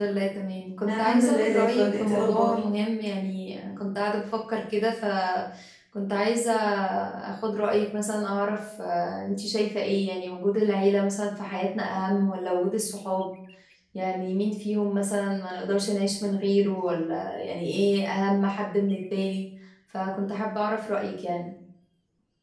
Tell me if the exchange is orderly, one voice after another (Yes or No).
No